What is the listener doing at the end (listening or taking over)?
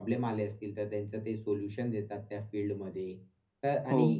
listening